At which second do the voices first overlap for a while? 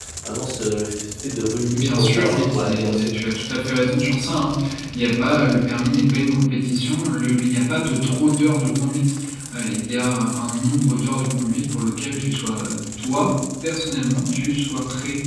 2 s

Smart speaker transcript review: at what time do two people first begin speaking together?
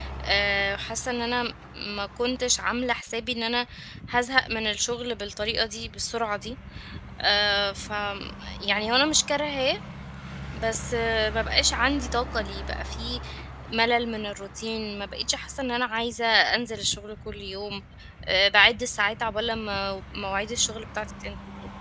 none

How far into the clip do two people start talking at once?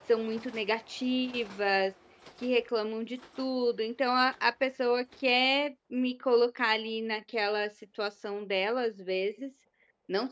none

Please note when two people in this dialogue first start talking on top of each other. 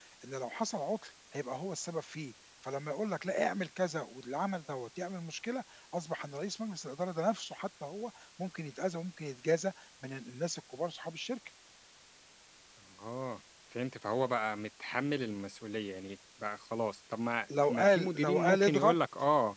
17 s

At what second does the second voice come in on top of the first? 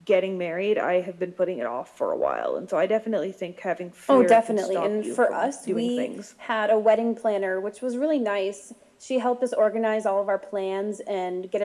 4 s

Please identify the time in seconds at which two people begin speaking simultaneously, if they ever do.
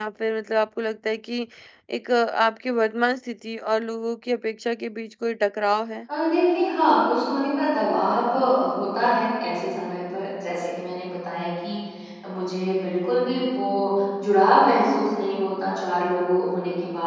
none

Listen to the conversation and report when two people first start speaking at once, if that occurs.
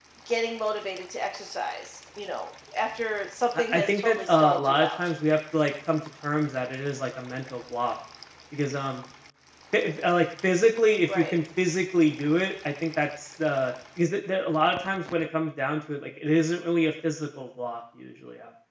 4 s

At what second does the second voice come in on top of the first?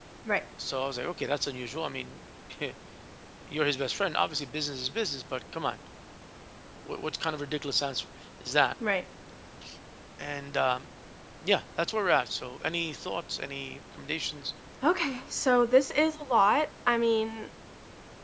none

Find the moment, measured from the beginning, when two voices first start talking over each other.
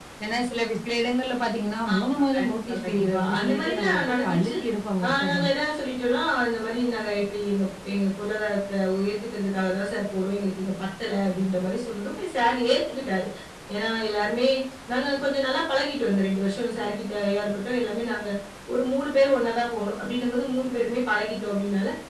2 s

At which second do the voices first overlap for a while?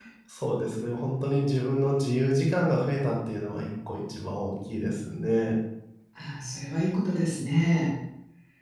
none

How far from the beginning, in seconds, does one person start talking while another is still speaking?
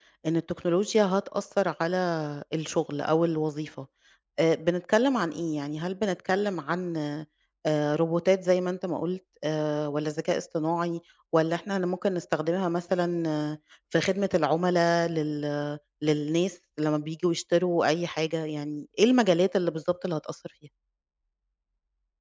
none

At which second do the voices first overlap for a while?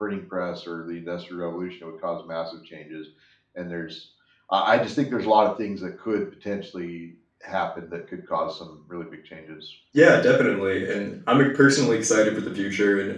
none

